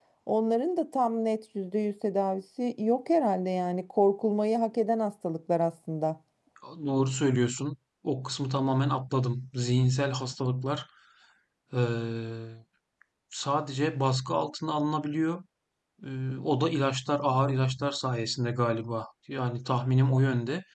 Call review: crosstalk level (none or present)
none